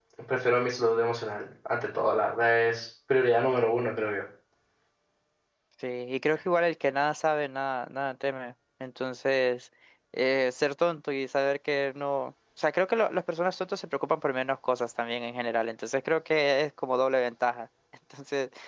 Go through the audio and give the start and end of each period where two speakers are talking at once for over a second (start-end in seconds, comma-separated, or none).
none